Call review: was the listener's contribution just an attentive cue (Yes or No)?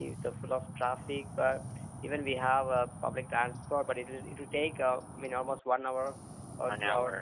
Yes